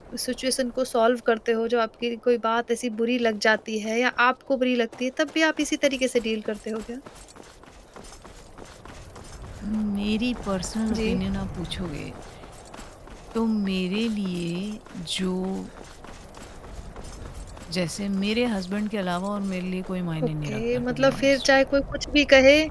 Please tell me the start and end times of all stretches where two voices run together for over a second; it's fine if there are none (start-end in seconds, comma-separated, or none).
20.2-21.5